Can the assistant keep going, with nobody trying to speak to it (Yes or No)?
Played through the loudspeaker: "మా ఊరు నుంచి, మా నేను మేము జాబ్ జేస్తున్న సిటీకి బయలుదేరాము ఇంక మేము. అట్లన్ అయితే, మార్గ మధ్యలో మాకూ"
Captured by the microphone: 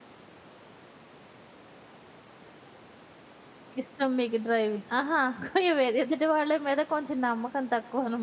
No